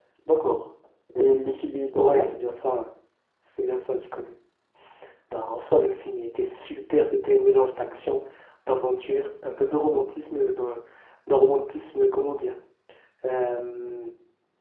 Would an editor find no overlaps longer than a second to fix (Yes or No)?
Yes